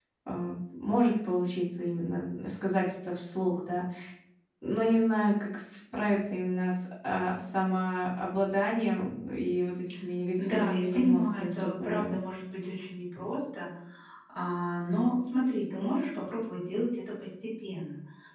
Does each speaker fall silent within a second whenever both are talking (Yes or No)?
No